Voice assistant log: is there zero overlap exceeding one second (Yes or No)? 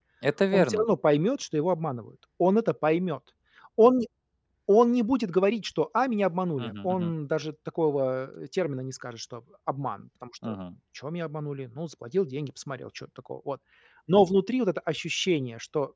Yes